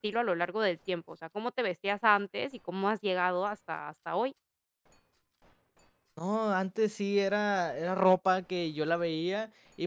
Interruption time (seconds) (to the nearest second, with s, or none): none